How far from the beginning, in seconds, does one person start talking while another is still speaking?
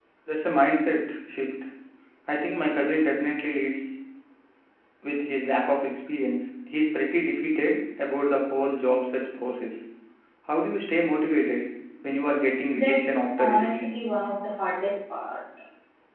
12.7 s

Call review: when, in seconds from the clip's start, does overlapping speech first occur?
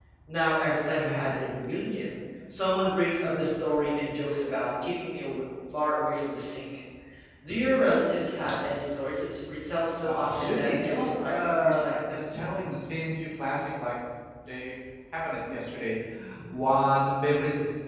10.0 s

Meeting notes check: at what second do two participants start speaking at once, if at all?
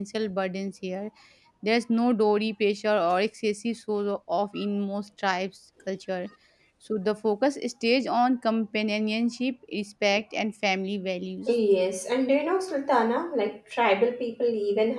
none

